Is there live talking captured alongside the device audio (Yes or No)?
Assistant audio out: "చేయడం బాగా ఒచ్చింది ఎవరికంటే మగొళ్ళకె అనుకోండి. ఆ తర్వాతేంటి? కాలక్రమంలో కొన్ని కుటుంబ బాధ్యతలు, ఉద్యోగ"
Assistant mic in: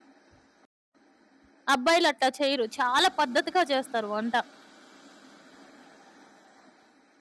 Yes